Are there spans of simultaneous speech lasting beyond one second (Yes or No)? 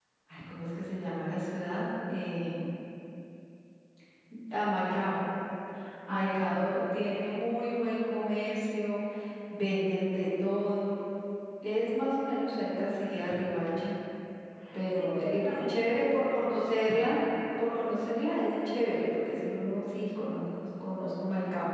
Yes